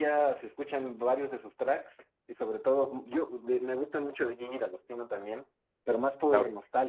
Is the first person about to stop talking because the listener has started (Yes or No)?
Yes